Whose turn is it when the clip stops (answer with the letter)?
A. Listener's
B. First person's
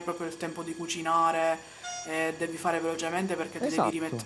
B